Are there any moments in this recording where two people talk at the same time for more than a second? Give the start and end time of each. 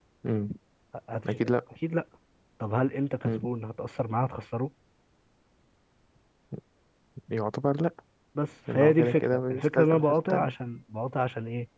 8.7-10.5

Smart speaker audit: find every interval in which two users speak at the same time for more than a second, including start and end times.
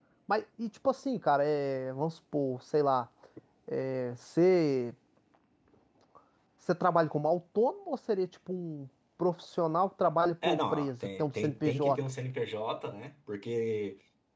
10.4-12.0

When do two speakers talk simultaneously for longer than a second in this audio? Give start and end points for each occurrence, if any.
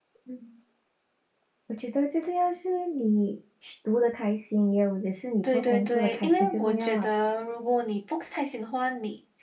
5.4-7.1

